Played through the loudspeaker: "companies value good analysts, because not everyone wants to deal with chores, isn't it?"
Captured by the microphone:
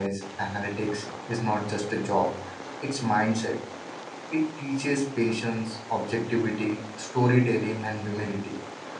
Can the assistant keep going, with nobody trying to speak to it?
No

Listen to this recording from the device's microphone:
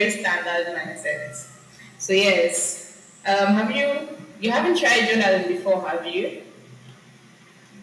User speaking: No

